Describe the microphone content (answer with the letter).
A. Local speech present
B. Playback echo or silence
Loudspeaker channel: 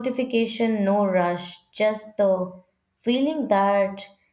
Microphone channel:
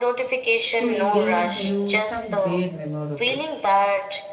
A